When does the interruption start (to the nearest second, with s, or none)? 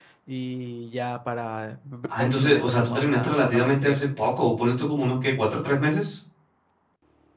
2 s